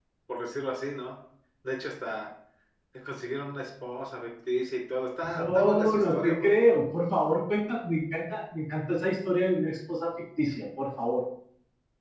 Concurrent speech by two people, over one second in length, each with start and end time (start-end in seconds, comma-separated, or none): 5.3-6.7